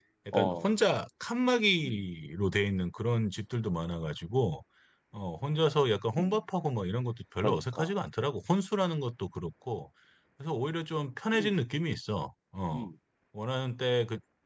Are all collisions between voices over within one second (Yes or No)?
Yes